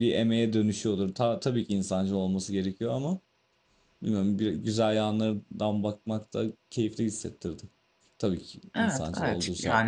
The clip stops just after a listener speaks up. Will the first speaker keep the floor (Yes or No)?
No